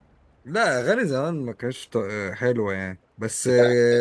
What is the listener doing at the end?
listening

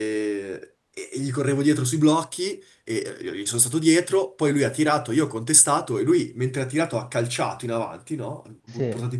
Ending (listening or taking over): listening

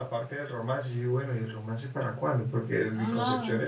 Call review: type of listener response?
listening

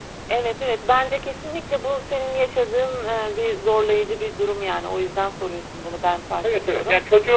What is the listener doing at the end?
taking over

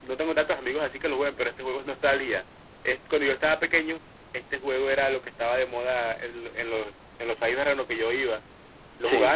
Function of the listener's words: listening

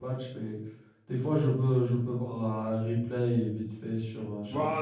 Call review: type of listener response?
taking over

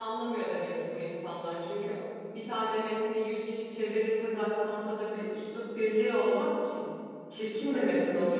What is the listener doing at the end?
listening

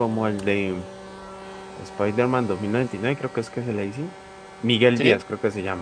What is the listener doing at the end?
listening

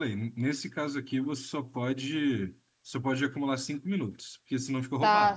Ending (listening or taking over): taking over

